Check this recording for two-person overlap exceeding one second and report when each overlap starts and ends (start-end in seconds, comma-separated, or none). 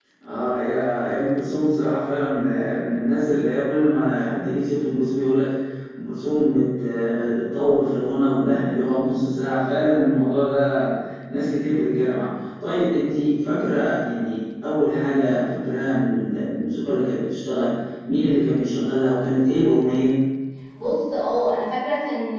none